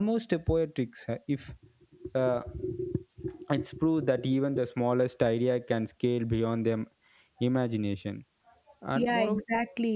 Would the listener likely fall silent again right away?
No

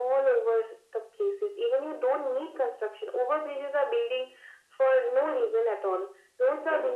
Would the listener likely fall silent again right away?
Yes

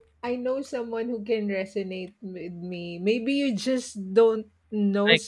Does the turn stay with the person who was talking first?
Yes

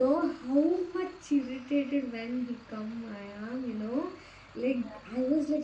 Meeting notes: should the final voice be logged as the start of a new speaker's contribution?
No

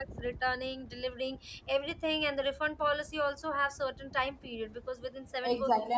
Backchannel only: No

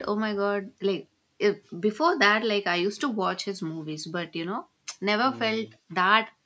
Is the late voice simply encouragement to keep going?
Yes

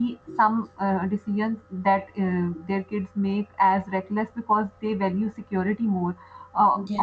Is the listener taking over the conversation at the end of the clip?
No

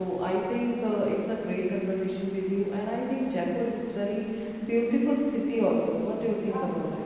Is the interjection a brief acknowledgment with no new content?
No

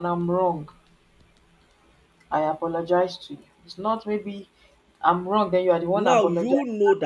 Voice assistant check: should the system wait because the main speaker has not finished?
No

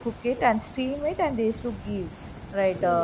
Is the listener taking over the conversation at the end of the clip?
No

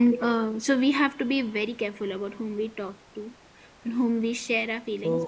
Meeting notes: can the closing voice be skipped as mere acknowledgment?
Yes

